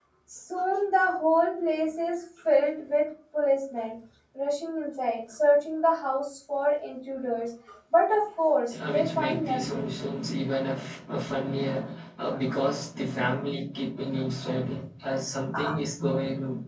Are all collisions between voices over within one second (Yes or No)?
No